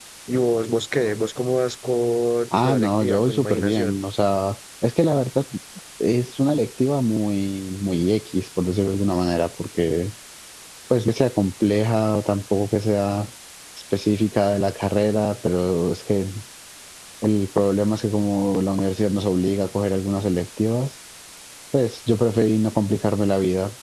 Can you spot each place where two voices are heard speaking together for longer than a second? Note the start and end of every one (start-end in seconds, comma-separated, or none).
2.5-4.0